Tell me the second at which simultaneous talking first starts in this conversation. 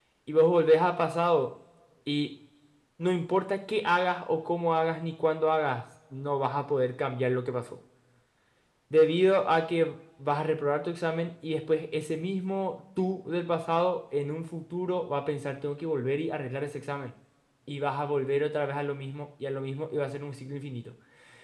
none

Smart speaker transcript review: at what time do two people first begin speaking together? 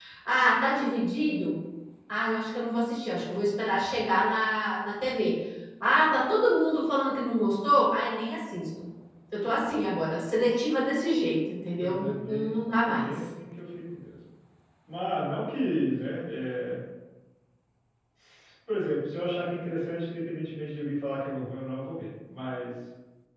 11.8 s

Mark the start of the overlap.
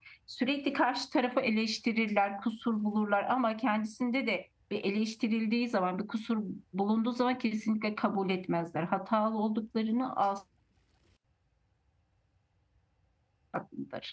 none

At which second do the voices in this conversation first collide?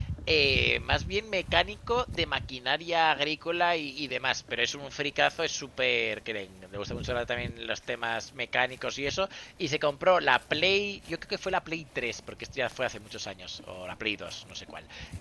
none

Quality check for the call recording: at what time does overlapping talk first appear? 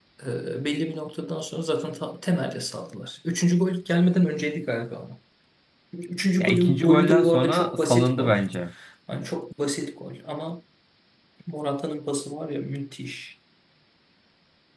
6.4 s

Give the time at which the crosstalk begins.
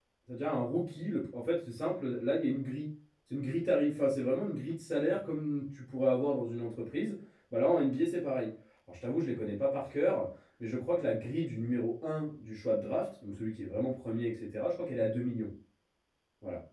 none

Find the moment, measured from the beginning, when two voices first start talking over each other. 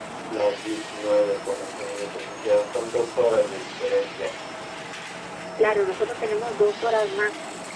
none

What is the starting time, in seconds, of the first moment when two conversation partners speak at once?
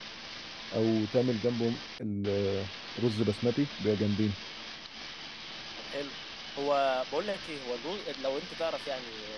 none

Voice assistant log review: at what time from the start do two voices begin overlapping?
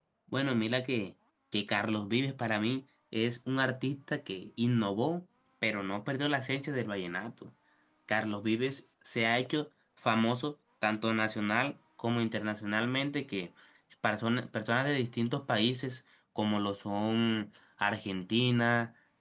none

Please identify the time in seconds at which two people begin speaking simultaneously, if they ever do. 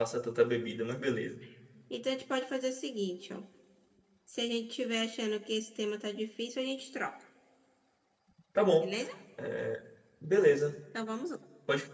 none

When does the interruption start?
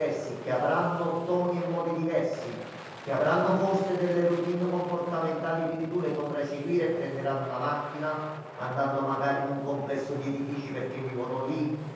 none

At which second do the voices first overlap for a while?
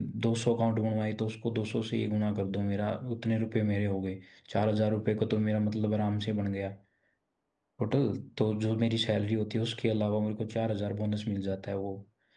none

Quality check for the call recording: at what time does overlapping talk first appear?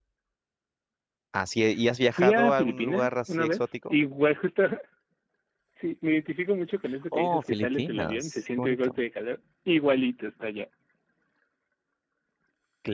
2.1 s

